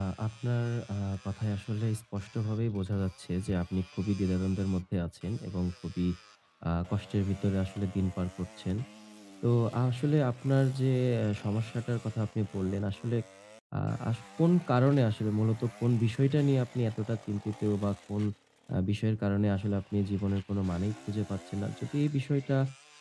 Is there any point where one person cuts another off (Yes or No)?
No